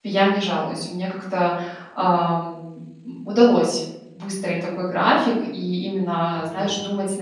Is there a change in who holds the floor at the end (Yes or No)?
No